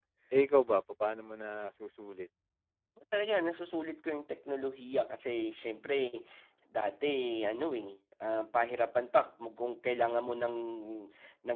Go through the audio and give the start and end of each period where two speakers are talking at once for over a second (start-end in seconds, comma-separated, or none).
none